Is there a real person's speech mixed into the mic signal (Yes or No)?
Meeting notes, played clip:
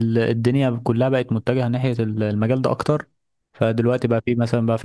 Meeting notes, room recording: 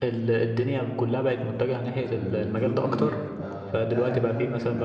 Yes